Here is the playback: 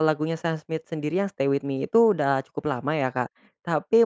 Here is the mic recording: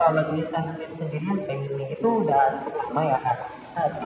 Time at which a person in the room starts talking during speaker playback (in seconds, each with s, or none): none